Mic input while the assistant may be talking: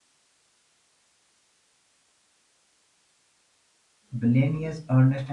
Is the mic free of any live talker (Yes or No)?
No